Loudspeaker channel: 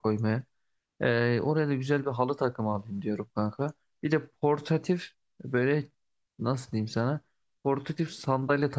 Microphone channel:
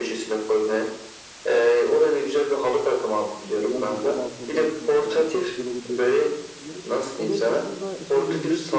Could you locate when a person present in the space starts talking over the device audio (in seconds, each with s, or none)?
3.5 s